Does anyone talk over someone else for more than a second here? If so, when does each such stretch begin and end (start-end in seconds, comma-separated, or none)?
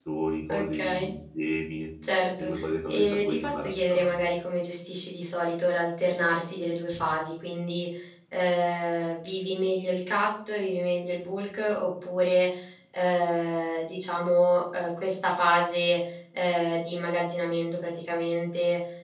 2.9-4.2